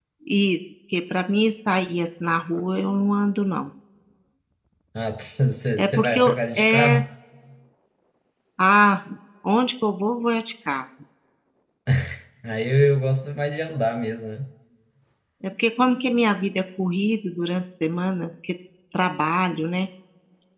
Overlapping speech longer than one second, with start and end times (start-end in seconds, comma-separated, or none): 5.8-7.0